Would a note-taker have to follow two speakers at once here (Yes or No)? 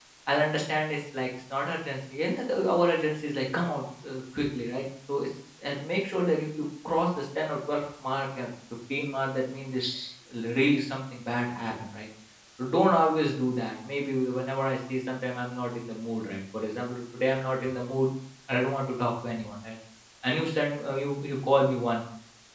No